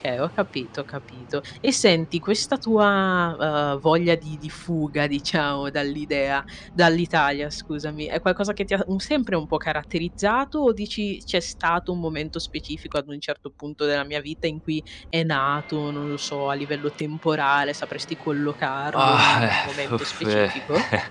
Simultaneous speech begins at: 19 s

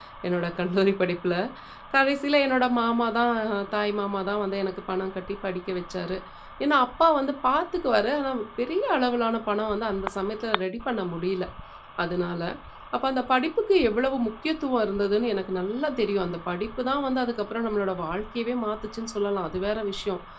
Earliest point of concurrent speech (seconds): none

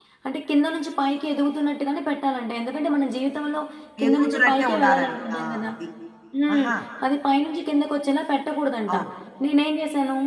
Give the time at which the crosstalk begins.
4 s

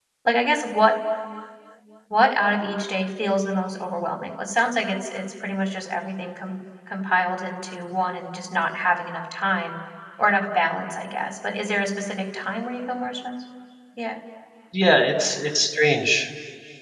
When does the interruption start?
none

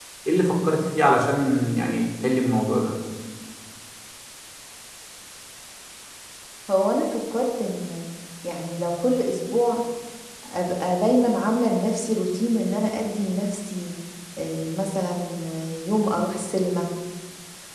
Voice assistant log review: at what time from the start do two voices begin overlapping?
none

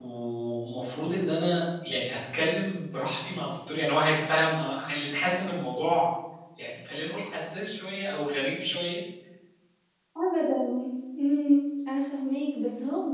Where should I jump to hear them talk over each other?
none

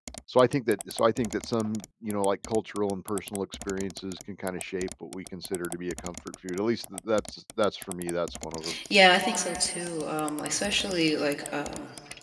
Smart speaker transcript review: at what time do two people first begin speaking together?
none

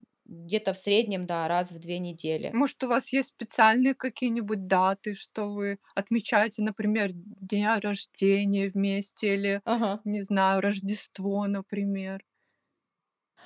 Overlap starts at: none

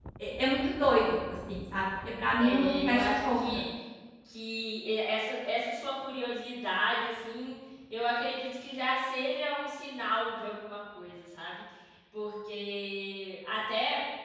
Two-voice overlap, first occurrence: 2 s

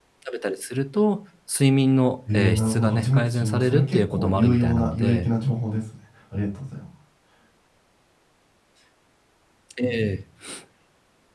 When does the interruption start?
2 s

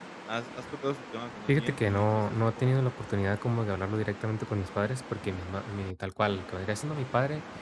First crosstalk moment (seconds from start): 1 s

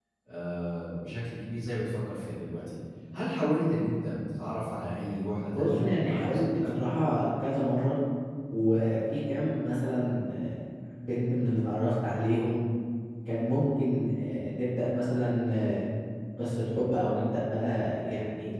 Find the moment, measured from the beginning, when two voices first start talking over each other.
5 s

